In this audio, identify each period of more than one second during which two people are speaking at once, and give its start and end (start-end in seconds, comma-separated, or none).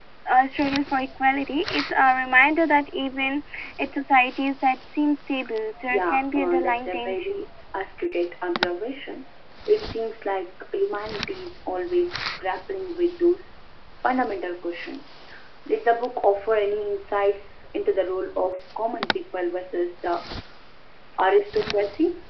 5.9-7.5